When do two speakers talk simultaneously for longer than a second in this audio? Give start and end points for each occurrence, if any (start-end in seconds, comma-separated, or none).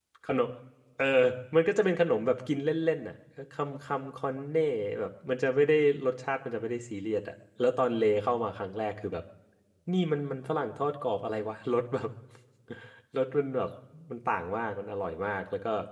none